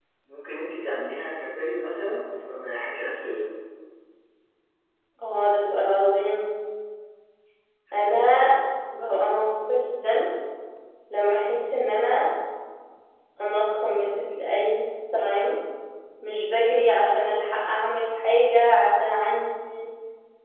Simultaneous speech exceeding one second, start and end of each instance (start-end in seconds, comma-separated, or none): none